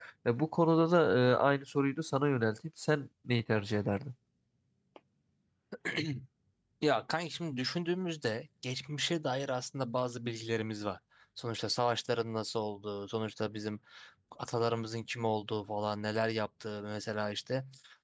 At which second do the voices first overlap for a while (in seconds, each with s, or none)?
none